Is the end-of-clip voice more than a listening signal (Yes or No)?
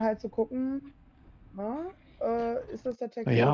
Yes